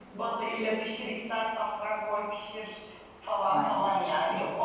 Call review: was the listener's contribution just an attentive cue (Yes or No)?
Yes